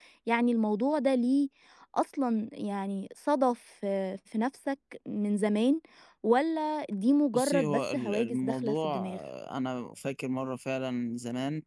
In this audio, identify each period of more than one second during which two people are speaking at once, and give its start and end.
7.3-9.2

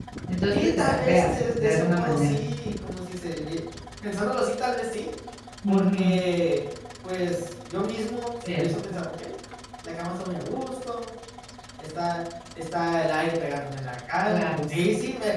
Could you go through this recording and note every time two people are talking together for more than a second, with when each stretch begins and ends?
0.5-2.4

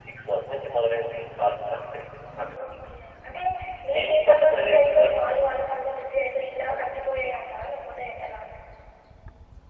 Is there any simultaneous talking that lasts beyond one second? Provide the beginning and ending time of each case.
4.0-5.2

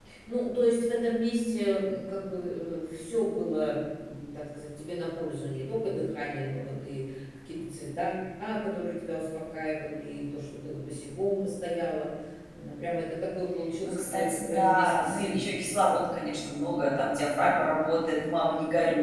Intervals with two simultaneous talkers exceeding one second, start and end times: 13.8-15.5

